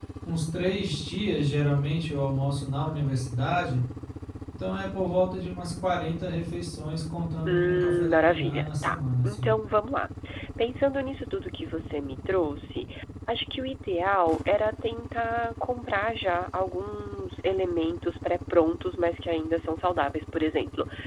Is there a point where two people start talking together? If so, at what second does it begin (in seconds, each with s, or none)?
7.5 s